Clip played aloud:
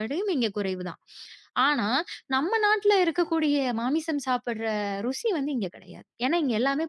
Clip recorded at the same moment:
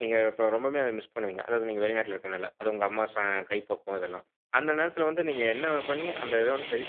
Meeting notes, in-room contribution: present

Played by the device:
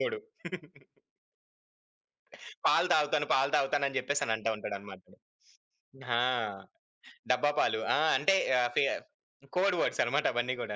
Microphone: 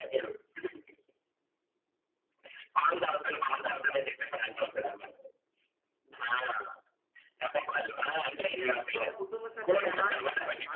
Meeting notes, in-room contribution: present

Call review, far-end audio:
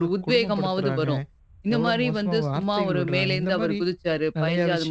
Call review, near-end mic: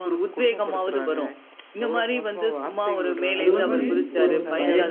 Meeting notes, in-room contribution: present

